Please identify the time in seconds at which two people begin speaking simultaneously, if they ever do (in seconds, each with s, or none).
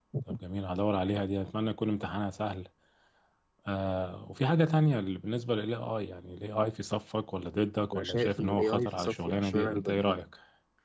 7.9 s